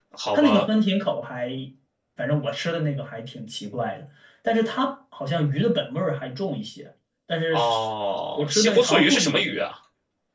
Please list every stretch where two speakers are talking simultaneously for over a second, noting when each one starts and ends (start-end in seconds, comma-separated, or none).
8.3-9.6